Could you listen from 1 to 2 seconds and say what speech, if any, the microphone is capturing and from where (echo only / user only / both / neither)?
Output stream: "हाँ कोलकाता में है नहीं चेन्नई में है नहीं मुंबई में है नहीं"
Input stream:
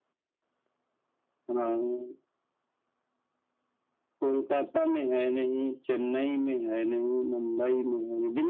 echo only